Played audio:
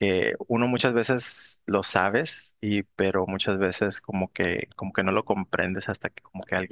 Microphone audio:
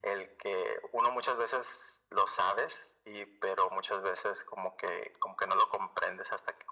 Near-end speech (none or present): none